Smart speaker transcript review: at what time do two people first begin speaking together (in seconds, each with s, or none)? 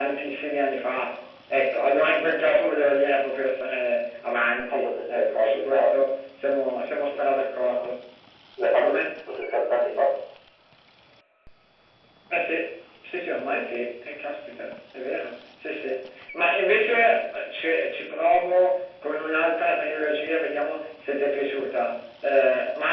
4.6 s